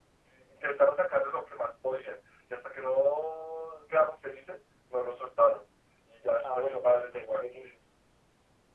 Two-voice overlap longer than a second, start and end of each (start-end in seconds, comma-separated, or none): 6.4-7.7